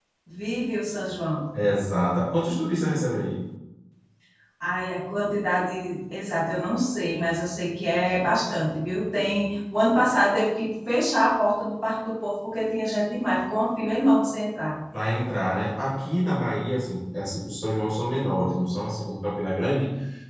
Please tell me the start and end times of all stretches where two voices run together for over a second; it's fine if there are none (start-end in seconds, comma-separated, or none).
none